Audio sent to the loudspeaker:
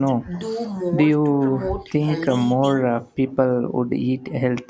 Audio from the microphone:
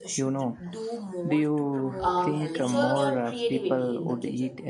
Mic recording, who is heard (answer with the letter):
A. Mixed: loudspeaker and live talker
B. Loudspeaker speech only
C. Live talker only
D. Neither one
A